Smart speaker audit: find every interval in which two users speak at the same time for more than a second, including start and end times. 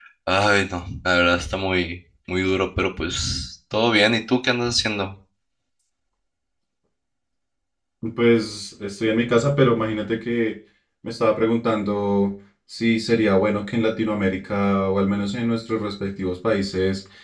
none

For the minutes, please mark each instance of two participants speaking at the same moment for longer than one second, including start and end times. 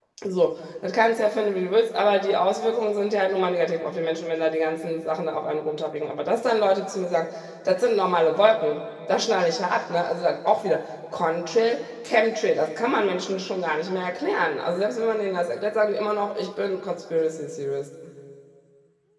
none

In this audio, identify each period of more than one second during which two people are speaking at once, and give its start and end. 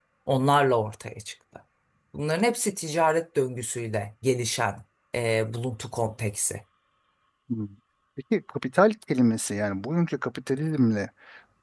none

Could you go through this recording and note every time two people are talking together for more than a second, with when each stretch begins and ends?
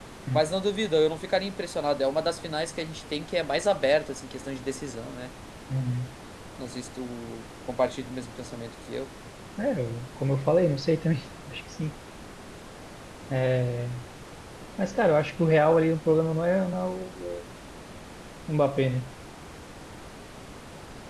none

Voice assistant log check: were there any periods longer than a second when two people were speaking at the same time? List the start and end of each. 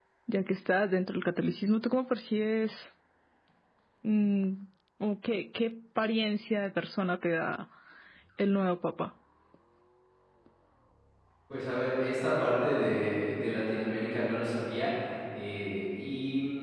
none

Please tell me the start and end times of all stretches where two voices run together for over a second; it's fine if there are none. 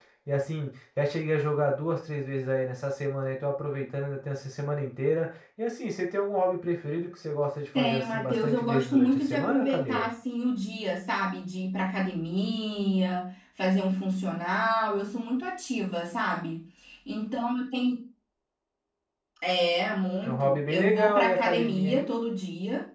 7.8-10.1, 20.2-22.1

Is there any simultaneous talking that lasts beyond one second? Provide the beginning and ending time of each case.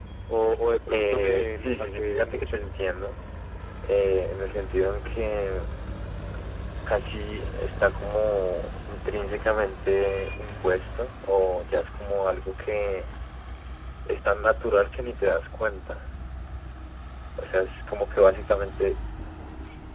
0.9-2.5

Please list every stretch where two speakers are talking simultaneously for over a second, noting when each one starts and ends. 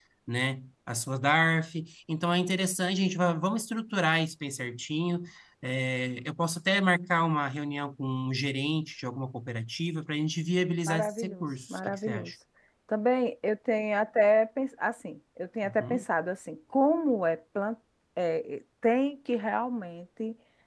10.9-12.3

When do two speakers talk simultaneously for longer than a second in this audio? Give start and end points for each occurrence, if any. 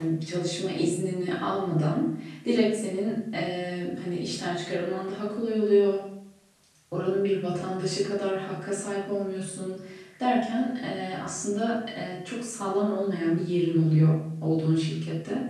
none

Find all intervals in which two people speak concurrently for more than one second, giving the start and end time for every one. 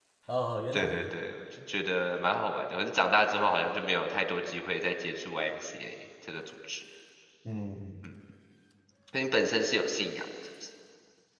none

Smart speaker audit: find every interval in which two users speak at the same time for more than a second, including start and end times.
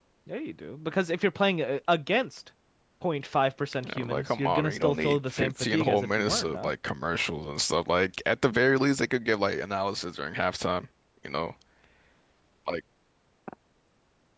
3.8-6.7

